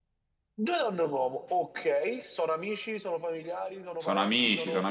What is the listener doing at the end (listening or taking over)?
taking over